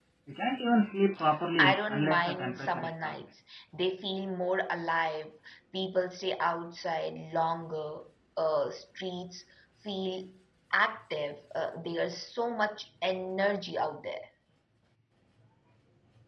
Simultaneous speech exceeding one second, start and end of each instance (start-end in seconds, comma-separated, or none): 1.6-3.1